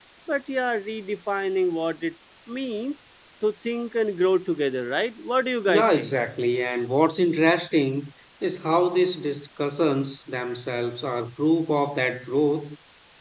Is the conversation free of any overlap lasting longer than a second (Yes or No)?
Yes